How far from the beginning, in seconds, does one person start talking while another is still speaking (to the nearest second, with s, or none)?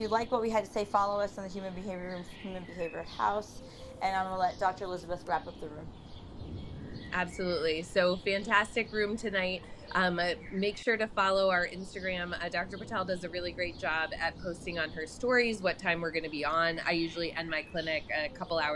none